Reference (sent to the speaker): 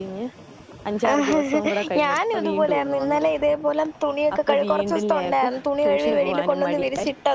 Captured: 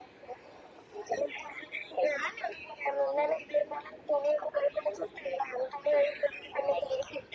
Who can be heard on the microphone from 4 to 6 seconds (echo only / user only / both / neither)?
echo only